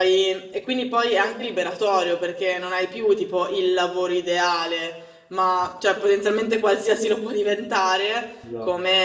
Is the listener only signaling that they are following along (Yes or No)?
Yes